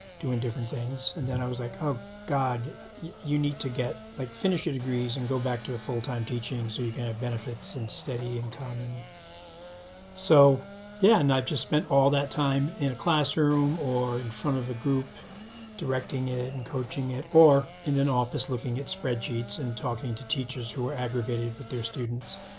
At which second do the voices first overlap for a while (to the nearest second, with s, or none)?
none